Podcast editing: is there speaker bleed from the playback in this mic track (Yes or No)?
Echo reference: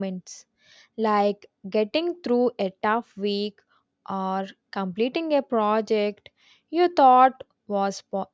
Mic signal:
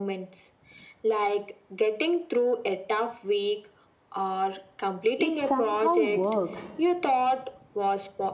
Yes